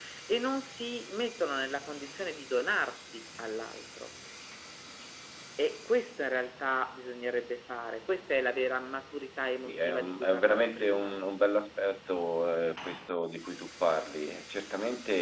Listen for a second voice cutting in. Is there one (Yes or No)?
Yes